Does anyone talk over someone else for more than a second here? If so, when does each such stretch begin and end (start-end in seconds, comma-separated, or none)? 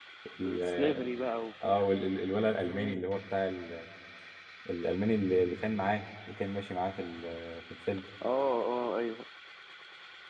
none